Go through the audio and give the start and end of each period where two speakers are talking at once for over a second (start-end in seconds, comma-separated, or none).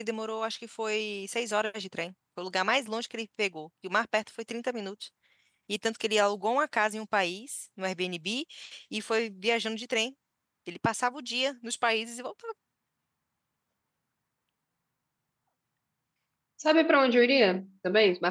none